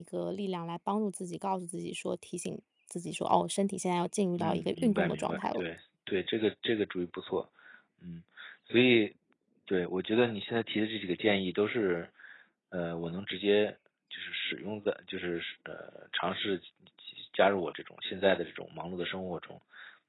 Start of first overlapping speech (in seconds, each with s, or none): 4.4 s